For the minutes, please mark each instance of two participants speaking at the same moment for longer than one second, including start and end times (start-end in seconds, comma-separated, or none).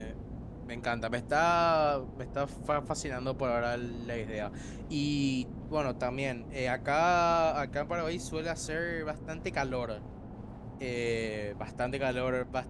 none